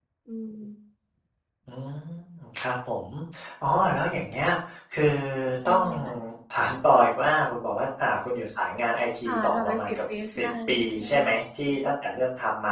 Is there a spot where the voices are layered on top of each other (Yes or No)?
Yes